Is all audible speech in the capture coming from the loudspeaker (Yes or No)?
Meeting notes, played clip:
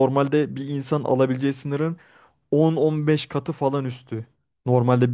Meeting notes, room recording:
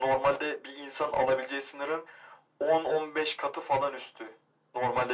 Yes